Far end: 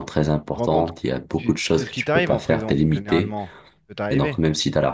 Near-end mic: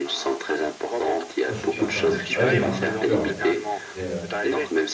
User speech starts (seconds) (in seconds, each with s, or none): 1.4 s